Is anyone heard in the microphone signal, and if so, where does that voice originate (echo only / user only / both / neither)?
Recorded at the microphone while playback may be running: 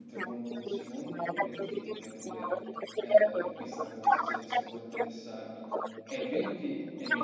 both